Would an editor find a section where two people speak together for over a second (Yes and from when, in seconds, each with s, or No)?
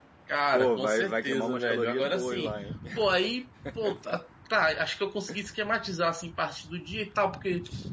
Yes, from 0.5 s